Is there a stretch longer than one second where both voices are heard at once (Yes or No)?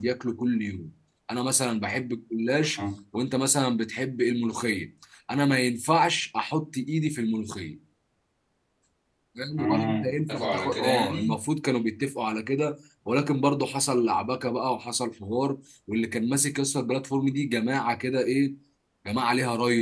Yes